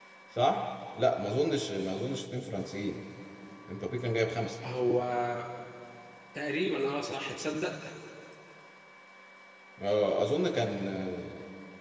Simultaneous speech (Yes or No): No